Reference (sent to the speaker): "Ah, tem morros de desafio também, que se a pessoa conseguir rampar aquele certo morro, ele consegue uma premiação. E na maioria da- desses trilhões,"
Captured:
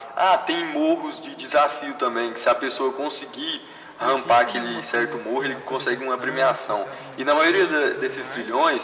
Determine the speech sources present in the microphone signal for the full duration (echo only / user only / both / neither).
both